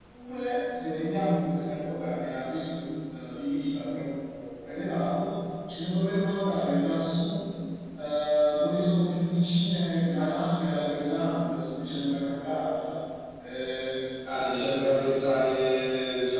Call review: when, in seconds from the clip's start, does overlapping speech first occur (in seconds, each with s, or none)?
none